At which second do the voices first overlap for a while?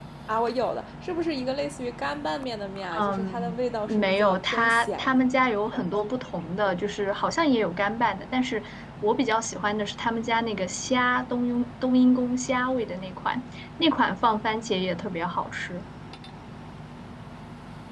3.0 s

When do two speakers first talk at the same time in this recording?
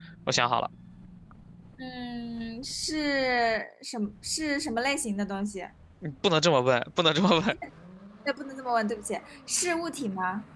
none

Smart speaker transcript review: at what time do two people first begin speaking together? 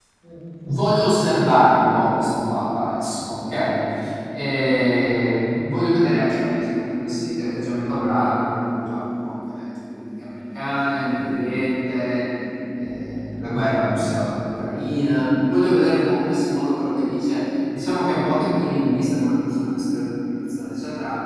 none

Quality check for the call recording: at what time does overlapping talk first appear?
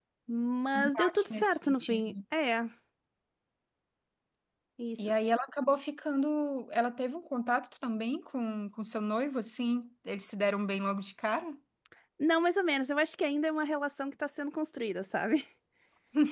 0.9 s

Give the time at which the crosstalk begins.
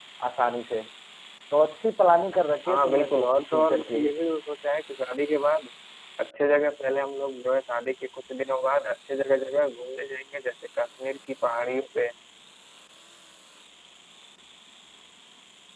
2.7 s

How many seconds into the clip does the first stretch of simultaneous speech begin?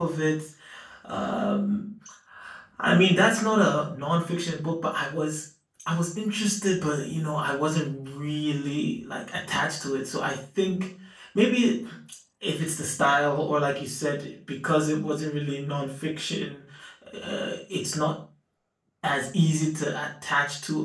none

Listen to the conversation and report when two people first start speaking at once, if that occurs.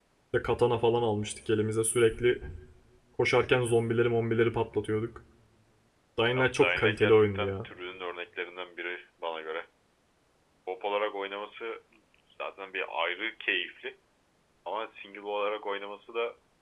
6.4 s

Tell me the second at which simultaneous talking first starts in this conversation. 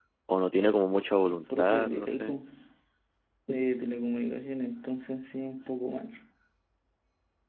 1.2 s

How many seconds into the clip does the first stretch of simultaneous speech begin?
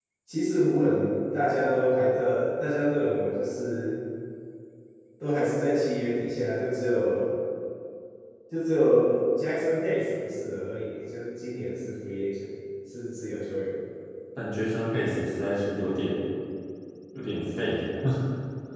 none

